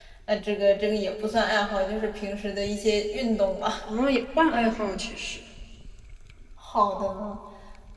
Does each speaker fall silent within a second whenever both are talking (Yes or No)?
Yes